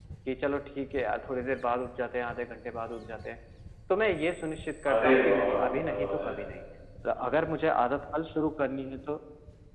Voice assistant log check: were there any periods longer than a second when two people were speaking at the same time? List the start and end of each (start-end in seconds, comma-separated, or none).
4.9-6.3